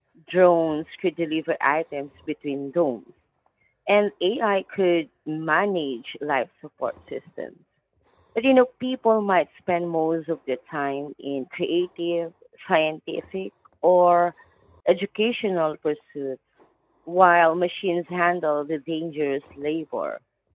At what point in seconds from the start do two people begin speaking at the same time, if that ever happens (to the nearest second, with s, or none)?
none